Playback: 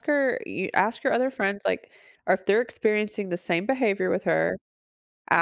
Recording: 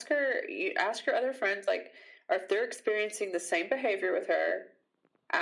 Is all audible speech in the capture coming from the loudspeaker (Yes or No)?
Yes